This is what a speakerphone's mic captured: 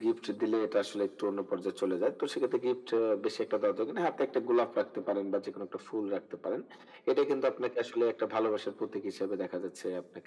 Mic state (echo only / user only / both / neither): echo only